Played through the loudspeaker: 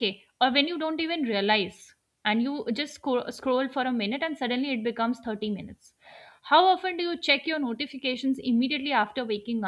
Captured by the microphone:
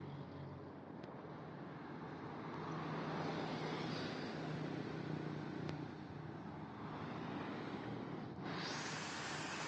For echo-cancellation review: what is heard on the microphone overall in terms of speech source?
neither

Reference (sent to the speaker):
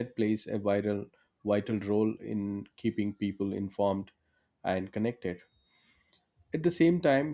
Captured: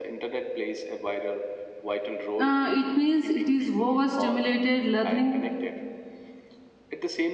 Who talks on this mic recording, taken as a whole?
both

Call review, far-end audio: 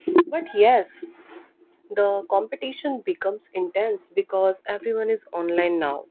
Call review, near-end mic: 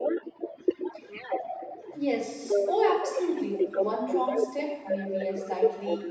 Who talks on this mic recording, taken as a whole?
both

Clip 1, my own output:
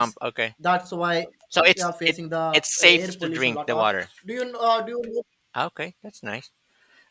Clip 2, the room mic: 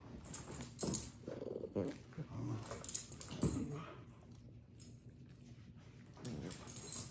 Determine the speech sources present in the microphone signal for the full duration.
neither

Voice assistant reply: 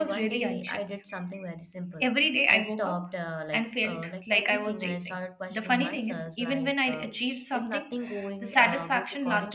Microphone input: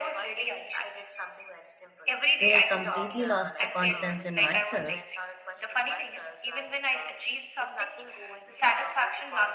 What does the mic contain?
both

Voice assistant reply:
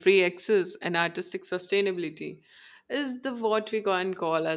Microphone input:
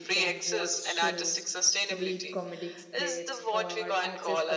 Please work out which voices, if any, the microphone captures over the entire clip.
both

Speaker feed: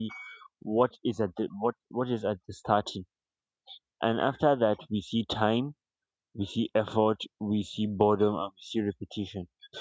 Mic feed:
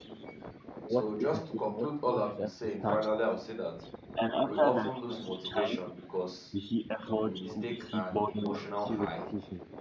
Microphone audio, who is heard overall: both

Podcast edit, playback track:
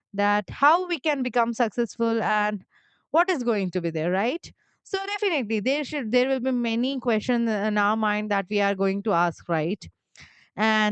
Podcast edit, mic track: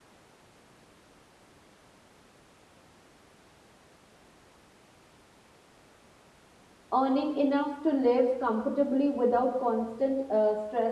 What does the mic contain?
user only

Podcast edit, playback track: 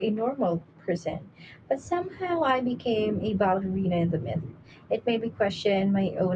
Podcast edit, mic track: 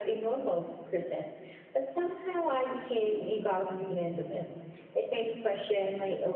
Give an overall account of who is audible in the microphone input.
echo only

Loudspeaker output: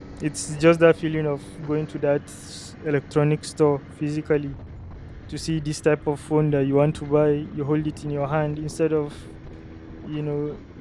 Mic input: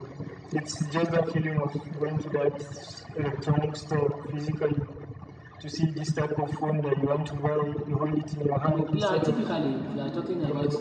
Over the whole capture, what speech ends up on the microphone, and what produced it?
both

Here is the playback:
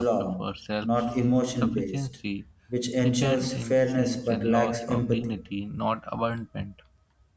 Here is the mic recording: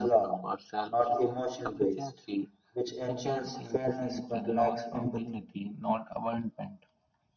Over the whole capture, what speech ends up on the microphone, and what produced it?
echo only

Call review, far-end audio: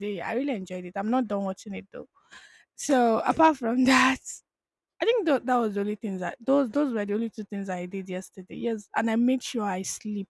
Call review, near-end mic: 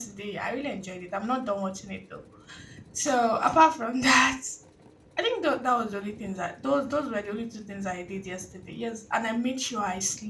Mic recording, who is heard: echo only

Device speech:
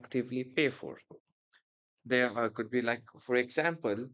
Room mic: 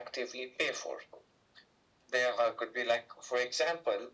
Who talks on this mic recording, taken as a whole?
echo only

